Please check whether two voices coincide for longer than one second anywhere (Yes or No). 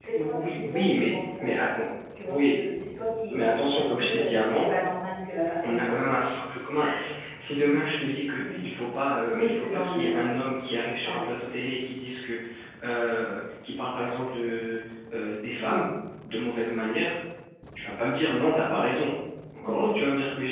Yes